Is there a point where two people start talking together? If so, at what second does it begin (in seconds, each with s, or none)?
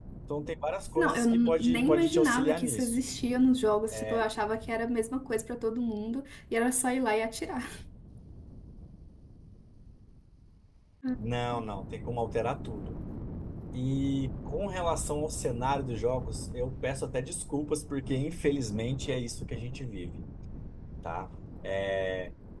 0.9 s